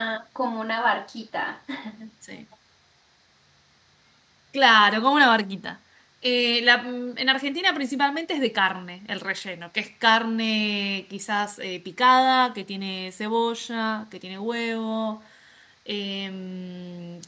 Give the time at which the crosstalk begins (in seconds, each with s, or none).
none